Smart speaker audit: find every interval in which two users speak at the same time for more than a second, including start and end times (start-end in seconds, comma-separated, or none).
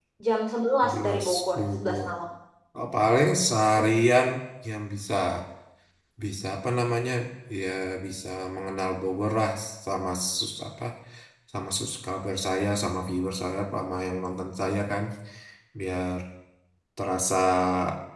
0.8-2.1